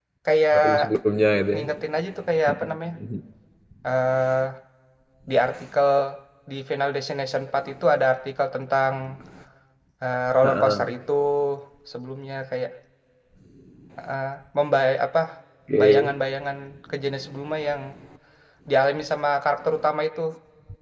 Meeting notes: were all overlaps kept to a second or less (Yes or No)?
Yes